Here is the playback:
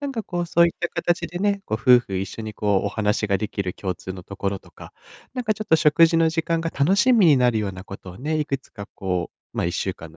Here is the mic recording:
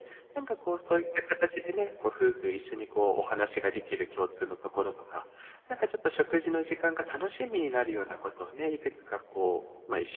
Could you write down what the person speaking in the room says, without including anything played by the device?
none

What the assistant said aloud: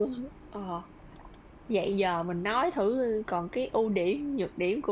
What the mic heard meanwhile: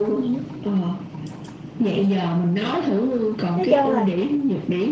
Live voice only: Nói chung là

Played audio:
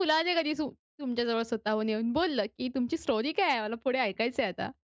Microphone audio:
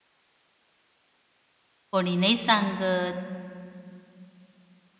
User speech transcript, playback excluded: कोणी नाही सांगत.

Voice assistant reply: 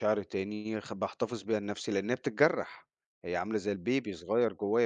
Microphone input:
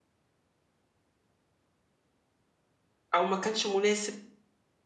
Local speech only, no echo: أو ما كانش مناسب،

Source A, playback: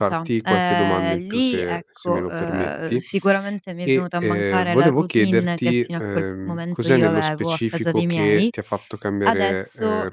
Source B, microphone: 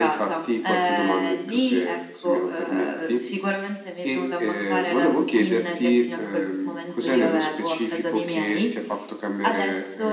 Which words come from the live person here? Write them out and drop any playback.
none

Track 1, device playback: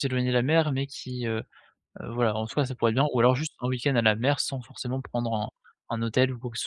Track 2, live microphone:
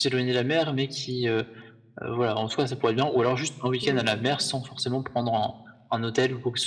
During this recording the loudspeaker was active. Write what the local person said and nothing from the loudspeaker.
Oui,

